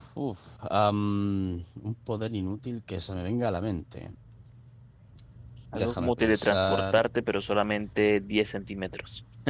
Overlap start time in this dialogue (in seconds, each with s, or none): 5.7 s